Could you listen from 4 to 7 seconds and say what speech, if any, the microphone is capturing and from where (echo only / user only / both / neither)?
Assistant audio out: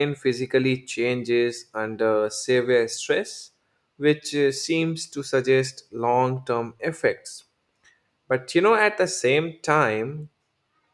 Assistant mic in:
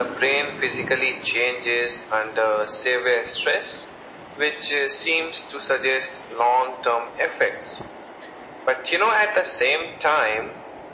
echo only